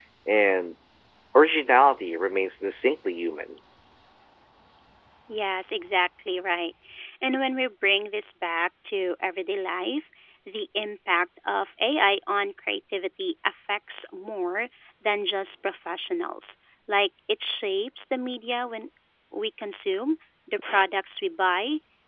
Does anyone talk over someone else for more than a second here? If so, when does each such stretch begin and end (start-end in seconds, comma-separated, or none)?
none